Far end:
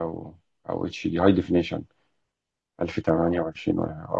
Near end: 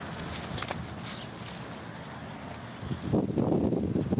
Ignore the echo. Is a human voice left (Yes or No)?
No